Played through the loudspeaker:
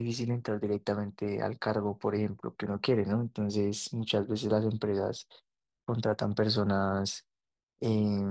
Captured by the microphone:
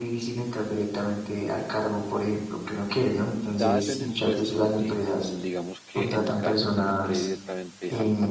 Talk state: both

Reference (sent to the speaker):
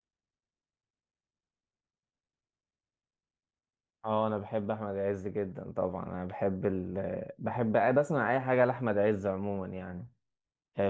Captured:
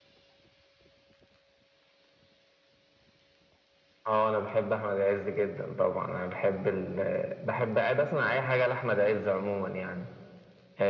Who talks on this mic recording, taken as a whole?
echo only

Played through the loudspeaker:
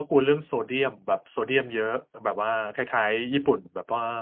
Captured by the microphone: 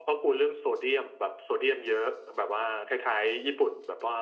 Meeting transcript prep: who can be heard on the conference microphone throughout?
echo only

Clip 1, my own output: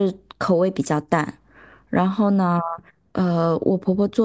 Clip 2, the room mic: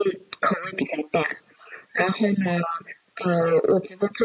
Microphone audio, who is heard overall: echo only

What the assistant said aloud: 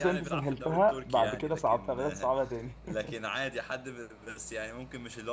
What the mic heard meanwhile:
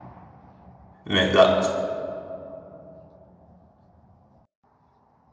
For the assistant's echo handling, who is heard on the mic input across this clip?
user only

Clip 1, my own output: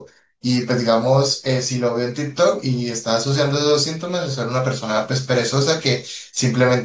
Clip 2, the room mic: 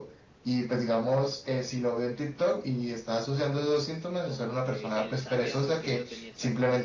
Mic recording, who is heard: both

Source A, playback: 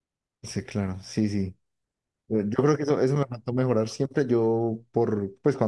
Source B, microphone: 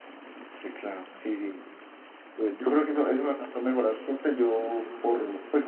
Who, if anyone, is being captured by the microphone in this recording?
echo only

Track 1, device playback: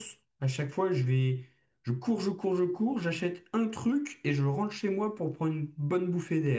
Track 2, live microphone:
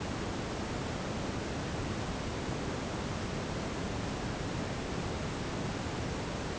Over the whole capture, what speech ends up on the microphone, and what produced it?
neither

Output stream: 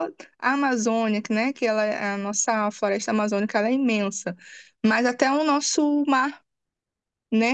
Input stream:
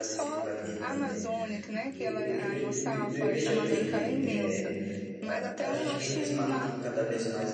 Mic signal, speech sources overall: both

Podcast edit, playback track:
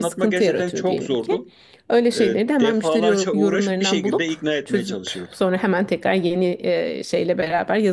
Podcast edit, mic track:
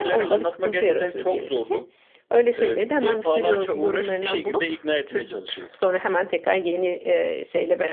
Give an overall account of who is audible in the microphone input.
echo only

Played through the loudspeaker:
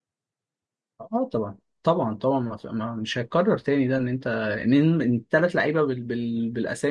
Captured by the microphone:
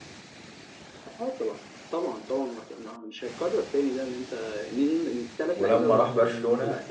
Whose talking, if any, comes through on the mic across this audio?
both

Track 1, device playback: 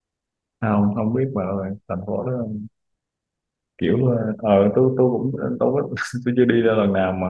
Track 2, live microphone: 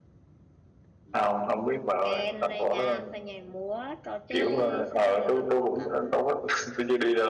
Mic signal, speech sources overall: both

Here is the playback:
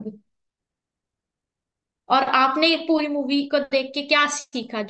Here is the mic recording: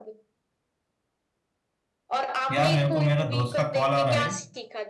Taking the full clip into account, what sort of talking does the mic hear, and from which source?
both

